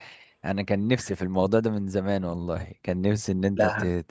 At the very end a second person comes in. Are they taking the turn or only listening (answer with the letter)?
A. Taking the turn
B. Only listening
B